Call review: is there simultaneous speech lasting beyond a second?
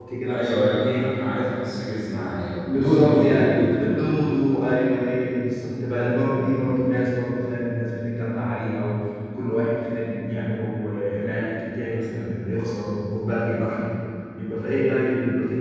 Yes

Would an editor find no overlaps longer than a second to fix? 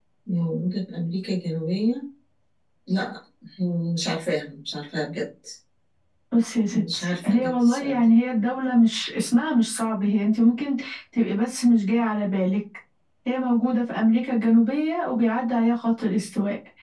No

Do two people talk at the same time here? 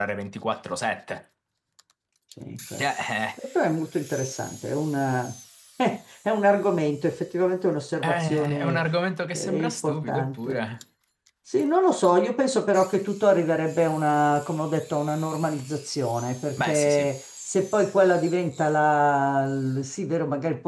Yes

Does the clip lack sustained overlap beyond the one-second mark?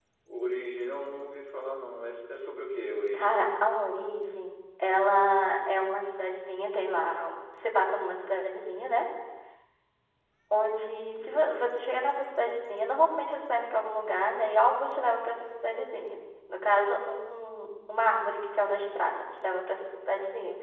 Yes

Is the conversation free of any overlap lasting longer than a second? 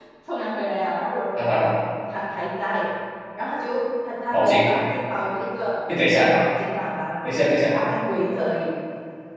Yes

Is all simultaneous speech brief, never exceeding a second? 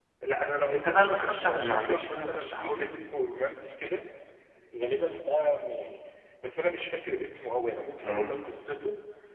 No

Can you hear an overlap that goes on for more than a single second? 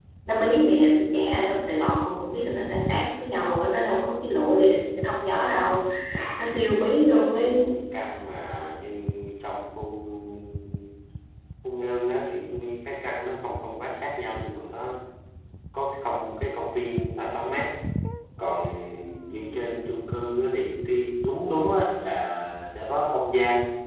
Yes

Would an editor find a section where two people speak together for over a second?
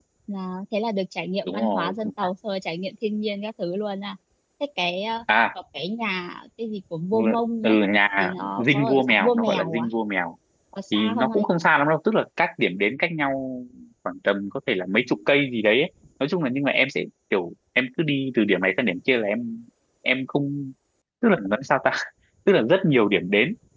Yes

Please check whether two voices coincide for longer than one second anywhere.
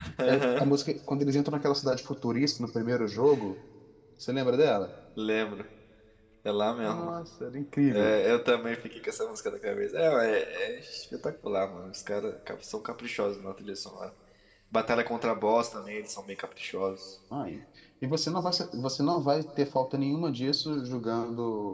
No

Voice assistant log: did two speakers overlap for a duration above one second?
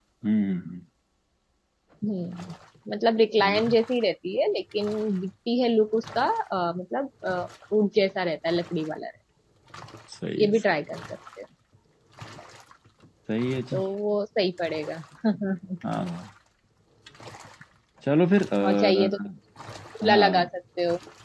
No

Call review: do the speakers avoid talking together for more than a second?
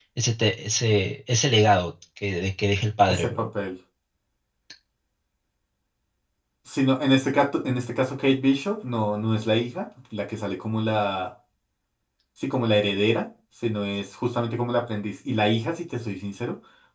Yes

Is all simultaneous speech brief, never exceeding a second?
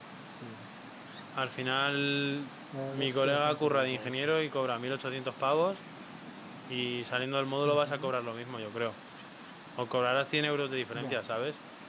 No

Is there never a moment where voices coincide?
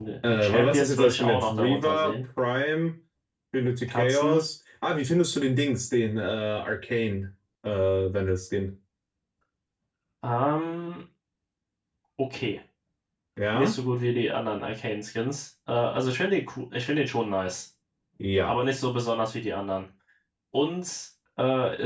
No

